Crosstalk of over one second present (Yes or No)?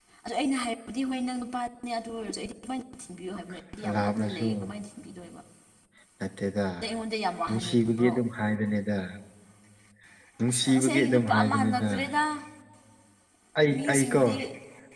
Yes